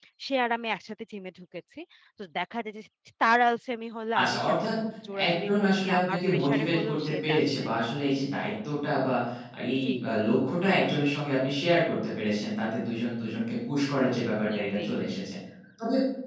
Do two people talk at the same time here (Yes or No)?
Yes